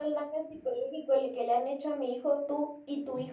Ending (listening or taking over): taking over